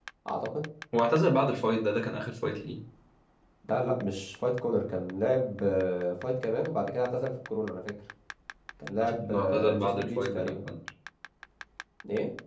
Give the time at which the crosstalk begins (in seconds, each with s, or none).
9.0 s